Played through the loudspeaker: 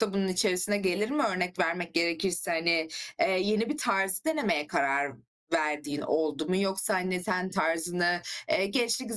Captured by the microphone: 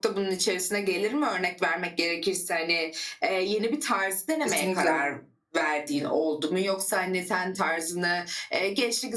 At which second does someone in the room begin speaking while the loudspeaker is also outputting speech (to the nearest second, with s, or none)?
4 s